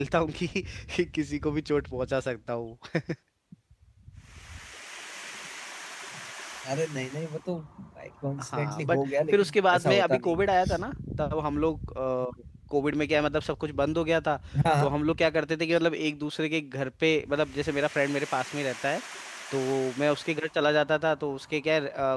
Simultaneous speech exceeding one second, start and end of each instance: 8.4-10.4

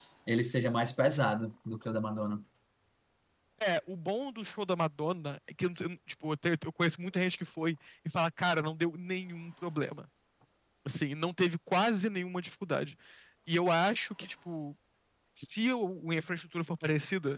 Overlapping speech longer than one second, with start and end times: none

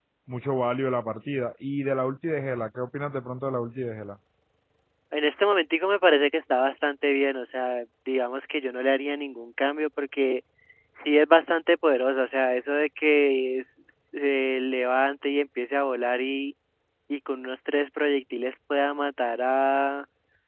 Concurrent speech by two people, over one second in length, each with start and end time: none

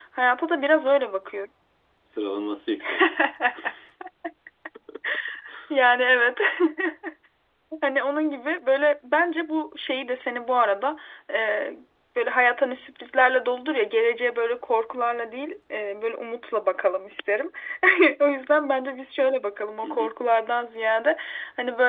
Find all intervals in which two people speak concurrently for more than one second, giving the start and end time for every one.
none

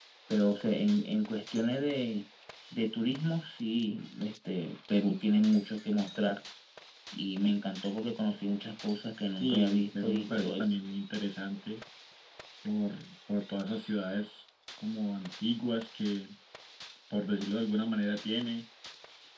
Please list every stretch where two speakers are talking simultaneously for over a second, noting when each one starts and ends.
9.4-10.6

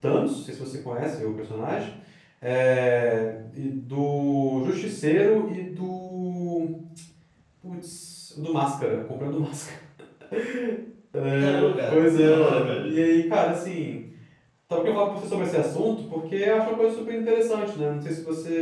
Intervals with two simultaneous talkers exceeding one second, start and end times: 11.4-12.9

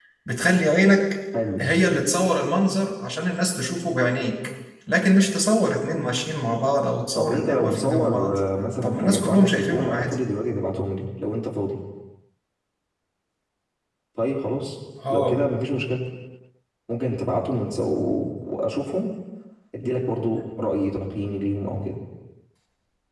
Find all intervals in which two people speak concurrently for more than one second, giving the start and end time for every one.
7.1-8.4, 8.8-10.2

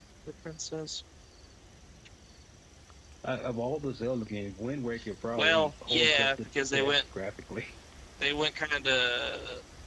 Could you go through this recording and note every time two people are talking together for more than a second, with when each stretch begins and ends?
5.4-7.0

